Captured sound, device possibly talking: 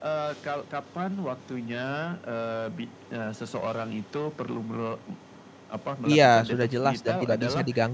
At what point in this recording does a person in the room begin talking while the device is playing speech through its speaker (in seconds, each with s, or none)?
6.0 s